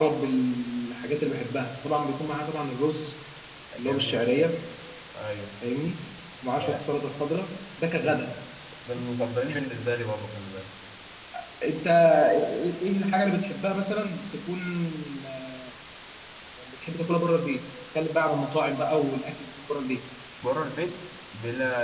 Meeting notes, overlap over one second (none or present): none